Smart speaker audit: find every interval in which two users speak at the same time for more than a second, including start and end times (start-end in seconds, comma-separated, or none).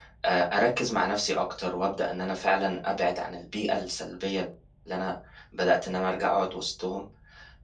none